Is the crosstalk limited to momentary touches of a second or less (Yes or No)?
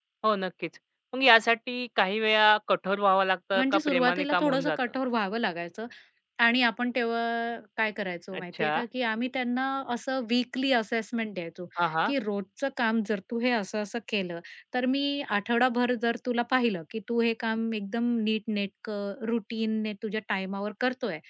No